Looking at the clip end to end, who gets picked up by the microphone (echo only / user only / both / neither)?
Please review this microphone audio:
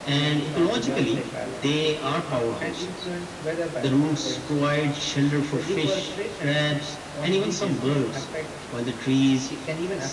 echo only